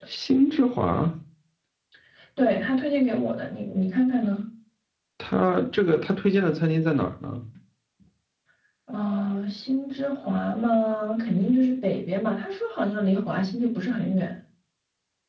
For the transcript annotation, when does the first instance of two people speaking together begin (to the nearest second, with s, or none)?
none